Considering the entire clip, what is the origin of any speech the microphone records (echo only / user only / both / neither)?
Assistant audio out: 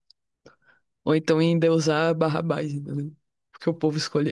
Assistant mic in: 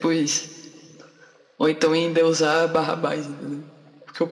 echo only